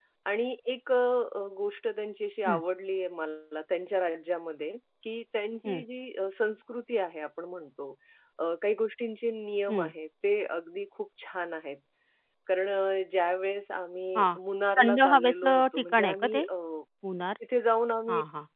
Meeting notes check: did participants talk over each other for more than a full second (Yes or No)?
Yes